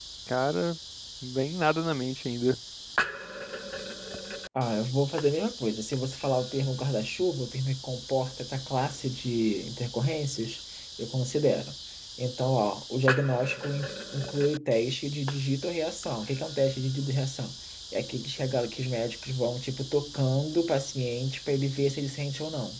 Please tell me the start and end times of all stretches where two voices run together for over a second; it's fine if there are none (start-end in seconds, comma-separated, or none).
none